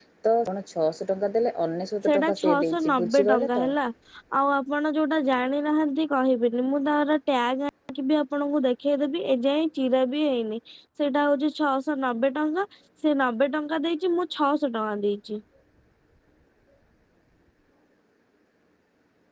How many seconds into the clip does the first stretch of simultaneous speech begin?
2.1 s

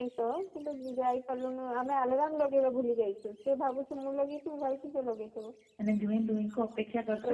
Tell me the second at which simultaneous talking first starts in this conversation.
none

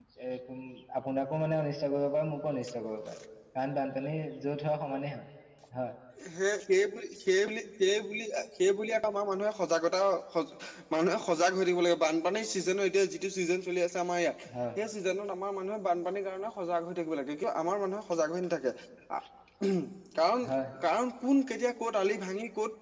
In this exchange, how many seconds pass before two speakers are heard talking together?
none

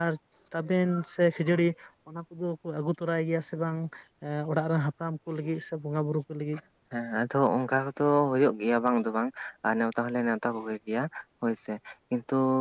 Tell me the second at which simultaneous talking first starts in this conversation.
none

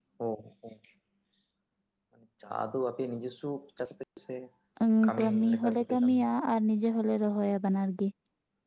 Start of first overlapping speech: 5.0 s

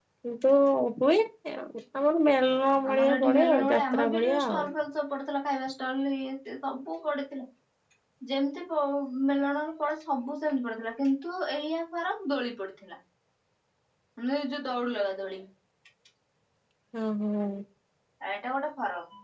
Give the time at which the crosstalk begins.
2.9 s

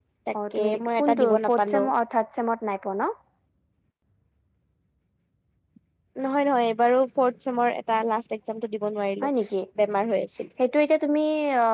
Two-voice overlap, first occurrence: 0.5 s

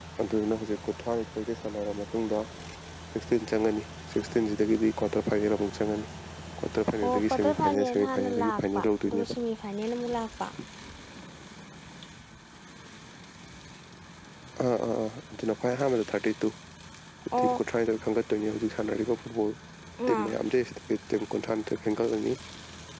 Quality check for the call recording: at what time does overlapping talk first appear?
7.0 s

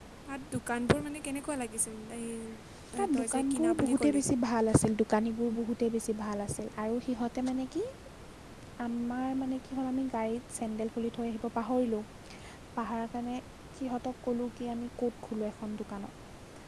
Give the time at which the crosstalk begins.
3.0 s

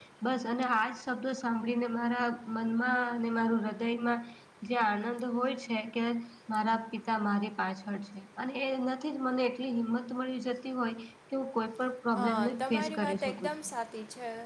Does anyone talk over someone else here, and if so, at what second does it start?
12.2 s

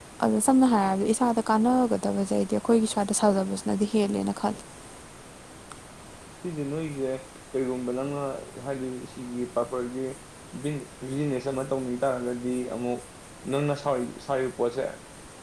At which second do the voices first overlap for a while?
none

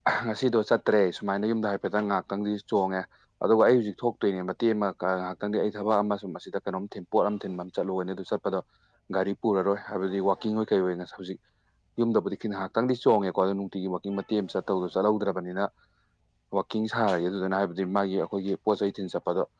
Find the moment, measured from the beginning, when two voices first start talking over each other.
none

